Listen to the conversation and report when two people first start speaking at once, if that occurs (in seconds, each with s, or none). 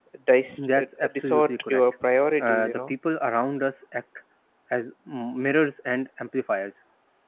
0.6 s